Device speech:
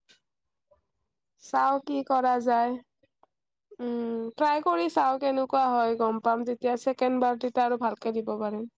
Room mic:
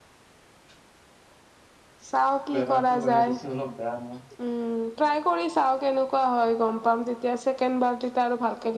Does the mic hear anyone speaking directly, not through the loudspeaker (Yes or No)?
Yes